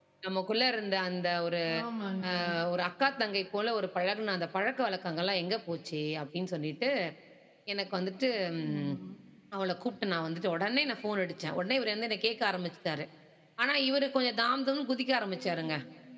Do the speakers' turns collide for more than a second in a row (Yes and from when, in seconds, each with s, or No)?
No